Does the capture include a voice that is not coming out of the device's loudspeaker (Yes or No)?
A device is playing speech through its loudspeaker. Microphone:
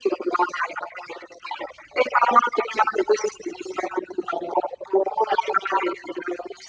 No